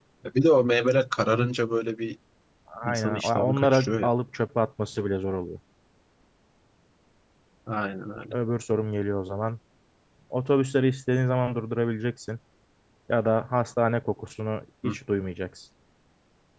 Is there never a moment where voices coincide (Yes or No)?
No